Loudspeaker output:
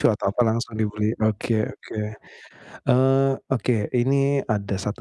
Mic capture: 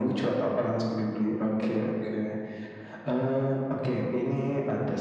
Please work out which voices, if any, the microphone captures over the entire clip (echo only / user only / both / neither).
echo only